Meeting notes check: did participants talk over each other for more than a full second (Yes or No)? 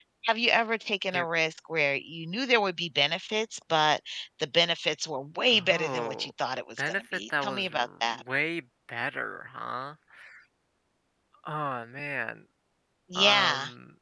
Yes